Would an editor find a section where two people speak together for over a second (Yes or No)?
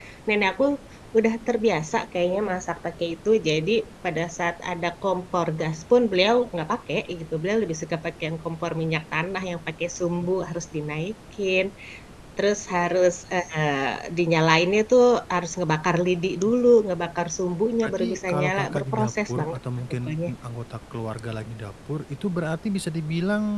Yes